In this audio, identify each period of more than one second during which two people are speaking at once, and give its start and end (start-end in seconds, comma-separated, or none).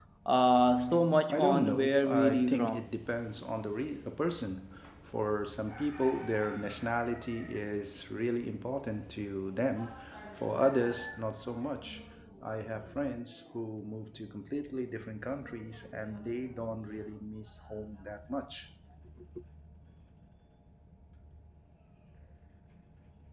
1.3-2.8